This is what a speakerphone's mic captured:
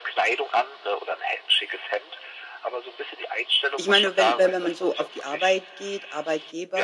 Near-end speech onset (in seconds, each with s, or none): 3.8 s